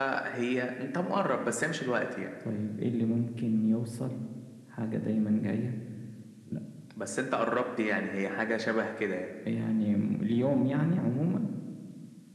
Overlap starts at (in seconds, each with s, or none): none